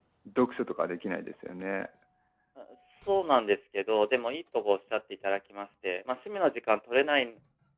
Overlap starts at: none

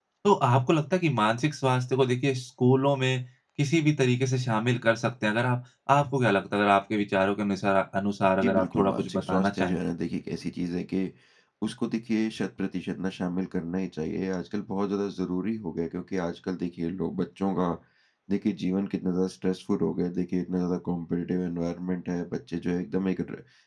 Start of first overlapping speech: 8 s

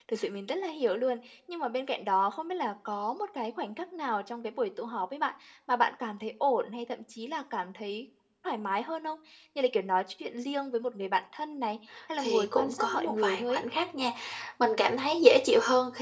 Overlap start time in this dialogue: 12 s

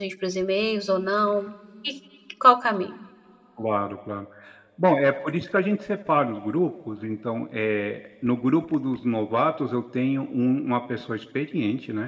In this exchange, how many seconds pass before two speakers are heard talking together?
none

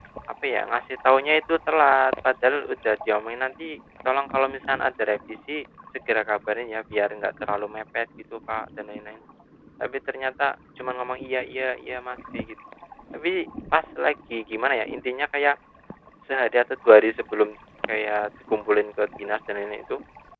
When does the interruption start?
none

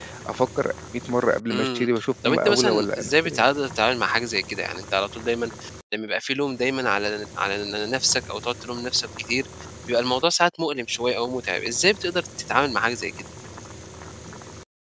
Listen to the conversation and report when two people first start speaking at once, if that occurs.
2 s

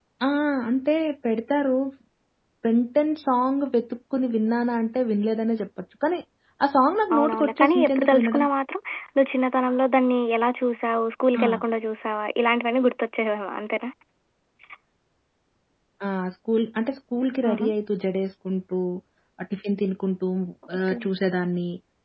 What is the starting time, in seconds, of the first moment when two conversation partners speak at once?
7 s

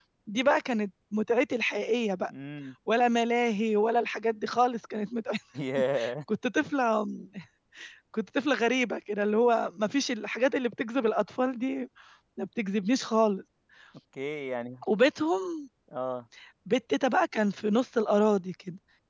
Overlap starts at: none

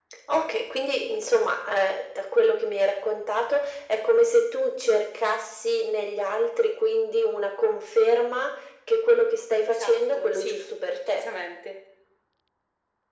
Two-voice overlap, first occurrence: 10 s

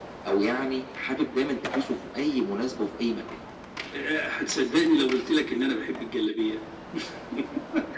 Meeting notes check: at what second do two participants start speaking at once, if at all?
none

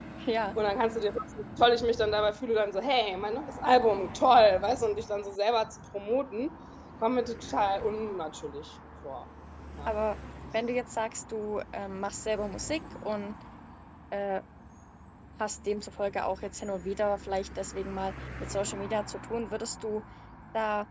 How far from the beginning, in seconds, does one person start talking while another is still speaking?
none

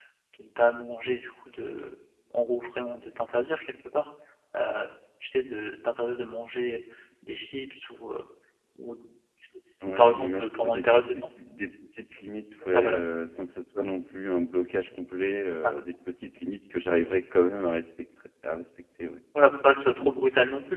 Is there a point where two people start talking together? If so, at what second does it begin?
10 s

